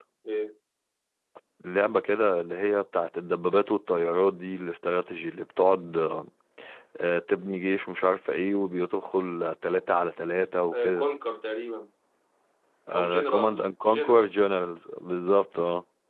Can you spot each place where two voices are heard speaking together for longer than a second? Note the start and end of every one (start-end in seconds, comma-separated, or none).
12.9-14.3